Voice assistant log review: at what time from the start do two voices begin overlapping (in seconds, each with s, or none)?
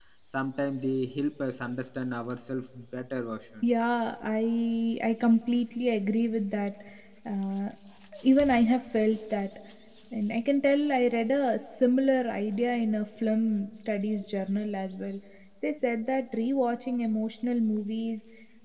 none